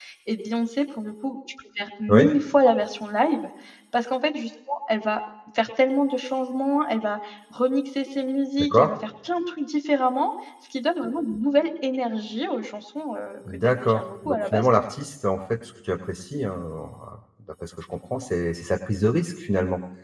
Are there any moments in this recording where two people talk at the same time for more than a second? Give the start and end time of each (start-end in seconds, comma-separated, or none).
13.6-14.9